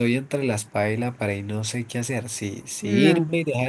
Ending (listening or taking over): listening